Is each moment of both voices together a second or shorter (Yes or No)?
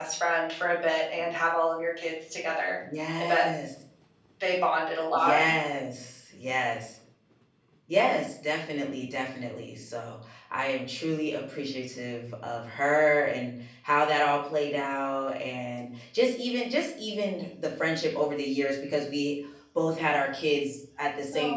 Yes